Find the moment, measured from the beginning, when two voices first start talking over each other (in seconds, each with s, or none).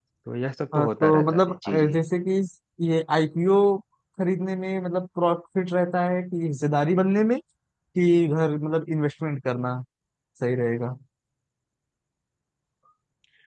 0.7 s